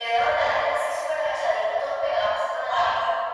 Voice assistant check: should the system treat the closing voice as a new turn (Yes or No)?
No